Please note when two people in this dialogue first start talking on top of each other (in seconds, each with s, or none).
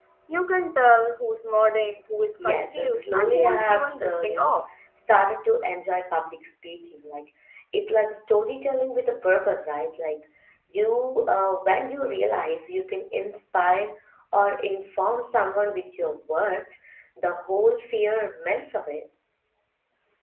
2.4 s